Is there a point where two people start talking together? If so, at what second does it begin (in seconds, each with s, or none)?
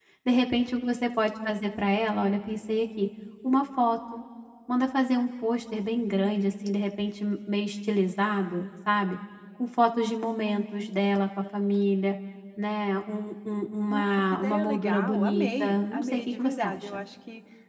13.9 s